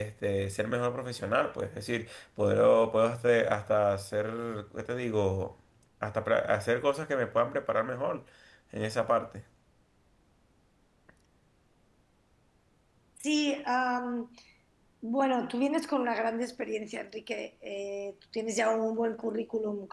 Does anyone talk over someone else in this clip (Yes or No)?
No